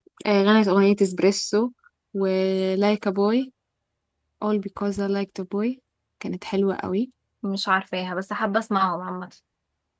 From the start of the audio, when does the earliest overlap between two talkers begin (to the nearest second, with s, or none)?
none